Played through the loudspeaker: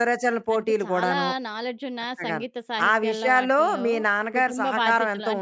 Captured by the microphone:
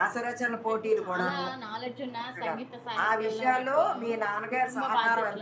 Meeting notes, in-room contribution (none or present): none